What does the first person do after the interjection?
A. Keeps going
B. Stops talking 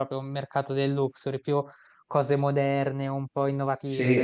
B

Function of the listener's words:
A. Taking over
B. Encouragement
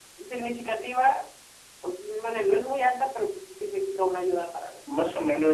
A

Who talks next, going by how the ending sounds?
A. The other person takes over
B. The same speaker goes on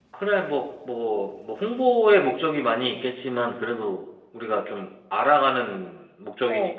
A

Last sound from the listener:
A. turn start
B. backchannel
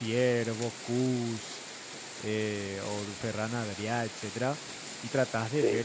B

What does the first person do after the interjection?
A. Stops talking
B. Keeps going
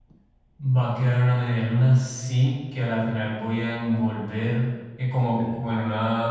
B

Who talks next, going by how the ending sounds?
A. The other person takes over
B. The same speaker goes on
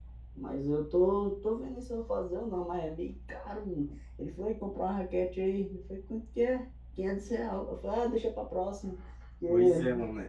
A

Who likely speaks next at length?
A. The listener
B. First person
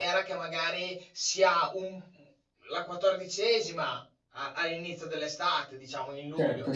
B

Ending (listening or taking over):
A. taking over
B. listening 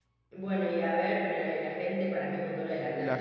A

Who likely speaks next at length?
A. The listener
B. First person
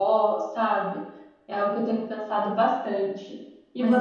A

